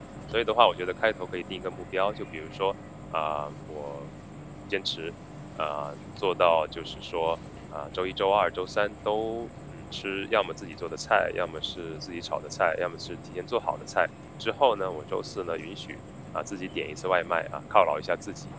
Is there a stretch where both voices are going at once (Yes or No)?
No